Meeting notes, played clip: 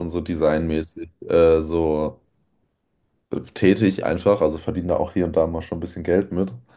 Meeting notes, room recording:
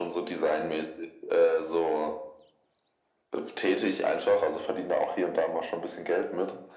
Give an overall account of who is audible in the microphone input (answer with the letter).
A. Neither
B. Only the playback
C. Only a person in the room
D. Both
B